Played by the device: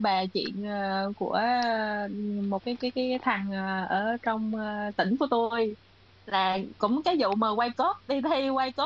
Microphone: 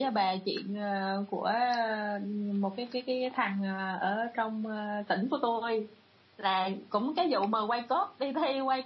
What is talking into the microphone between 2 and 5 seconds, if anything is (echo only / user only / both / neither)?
echo only